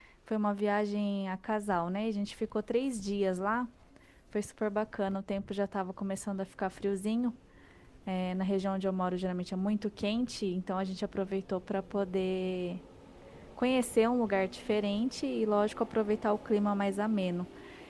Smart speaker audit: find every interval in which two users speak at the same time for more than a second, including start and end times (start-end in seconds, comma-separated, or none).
none